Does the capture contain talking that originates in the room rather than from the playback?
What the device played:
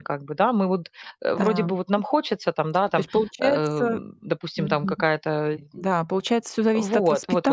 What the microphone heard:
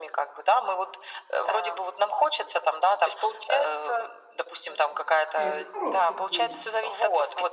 Yes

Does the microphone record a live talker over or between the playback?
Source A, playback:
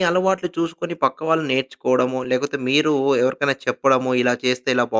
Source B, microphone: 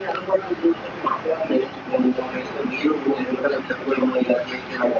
No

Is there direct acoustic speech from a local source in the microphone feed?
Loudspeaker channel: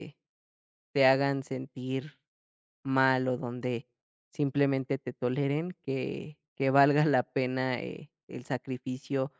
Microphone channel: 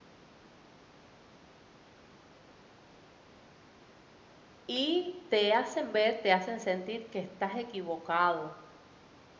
Yes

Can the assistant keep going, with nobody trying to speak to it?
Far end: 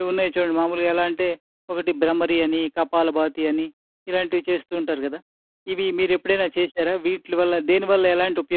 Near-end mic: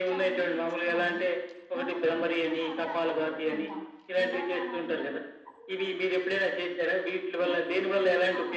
No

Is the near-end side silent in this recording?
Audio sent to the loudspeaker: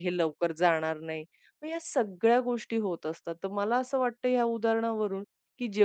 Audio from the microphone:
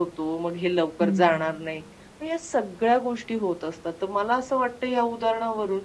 No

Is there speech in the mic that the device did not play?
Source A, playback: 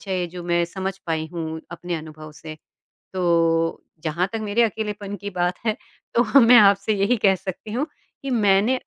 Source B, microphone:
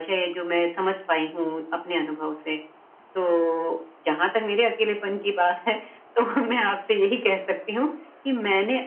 No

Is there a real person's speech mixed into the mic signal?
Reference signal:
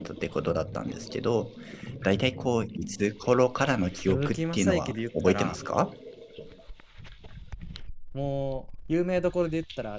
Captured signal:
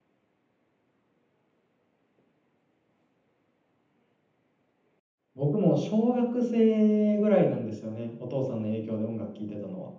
Yes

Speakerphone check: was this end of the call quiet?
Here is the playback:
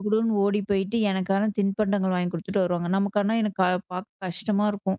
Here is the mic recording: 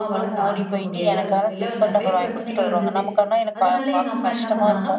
No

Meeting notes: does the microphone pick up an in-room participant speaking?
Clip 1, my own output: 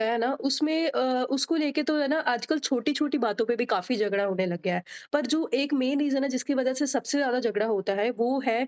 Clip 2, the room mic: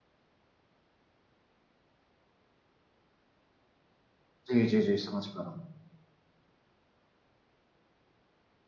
Yes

